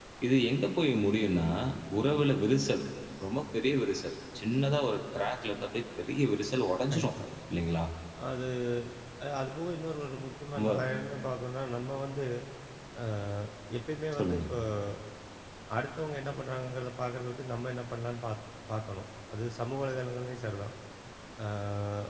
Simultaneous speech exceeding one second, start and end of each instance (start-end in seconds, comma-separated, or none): none